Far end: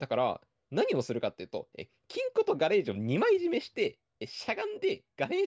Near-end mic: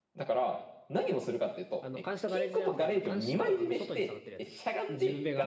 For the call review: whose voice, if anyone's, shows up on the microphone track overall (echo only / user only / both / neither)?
both